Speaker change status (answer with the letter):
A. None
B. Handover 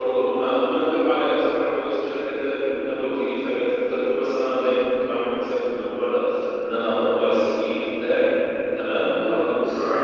B